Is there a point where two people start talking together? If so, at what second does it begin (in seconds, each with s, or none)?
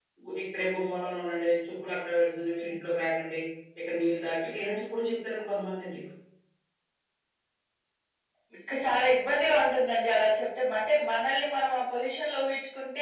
none